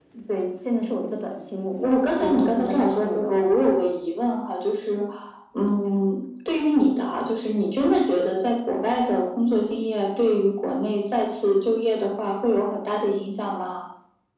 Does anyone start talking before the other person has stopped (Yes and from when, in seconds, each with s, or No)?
Yes, from 1.8 s